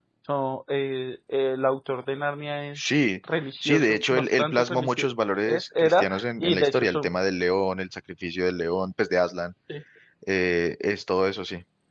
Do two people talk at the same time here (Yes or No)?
Yes